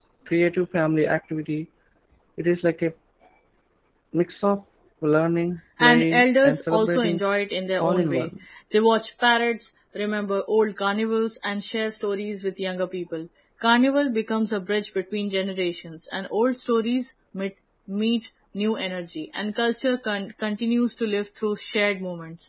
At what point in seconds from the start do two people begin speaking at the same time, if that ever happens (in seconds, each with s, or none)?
5.8 s